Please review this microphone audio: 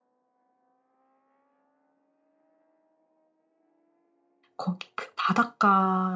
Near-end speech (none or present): present